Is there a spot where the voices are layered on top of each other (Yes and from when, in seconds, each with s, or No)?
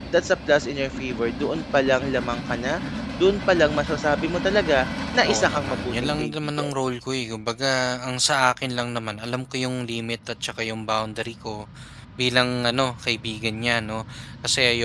Yes, from 5.2 s